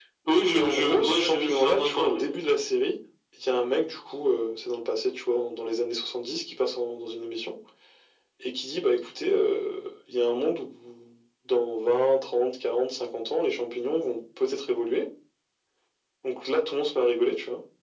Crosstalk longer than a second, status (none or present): present